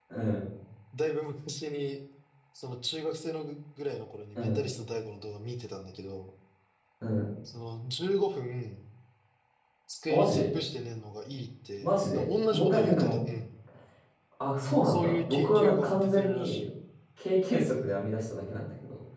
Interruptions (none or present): present